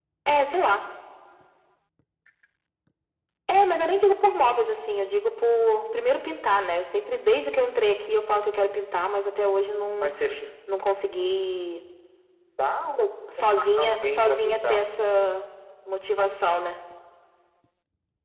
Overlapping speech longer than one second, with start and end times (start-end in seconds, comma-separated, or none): 13.6-14.8